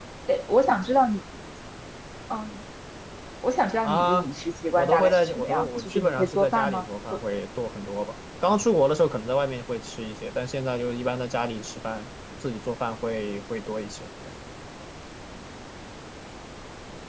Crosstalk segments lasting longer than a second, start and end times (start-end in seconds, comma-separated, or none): 4.8-7.2